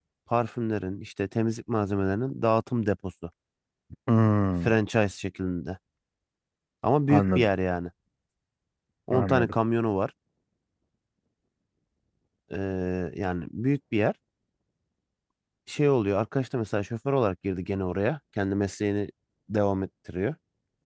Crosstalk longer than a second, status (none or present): none